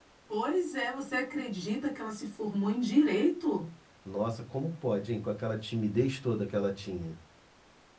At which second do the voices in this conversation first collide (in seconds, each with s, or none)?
none